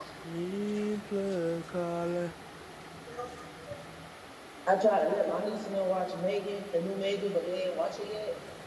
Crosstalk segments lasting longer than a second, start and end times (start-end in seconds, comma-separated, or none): none